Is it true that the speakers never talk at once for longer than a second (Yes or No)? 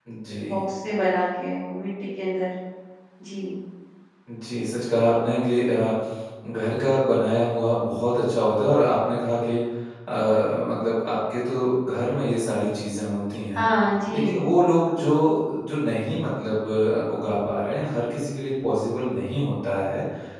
Yes